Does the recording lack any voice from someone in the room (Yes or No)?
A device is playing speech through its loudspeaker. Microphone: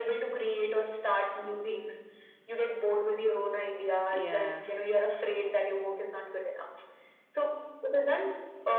No